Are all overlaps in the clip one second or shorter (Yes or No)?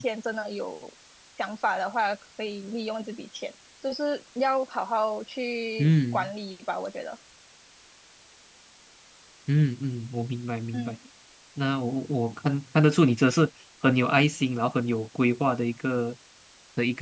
Yes